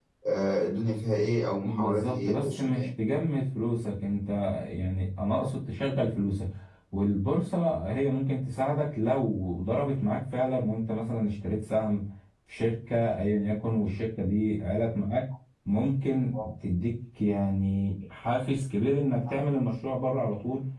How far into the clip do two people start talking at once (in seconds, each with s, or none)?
1.6 s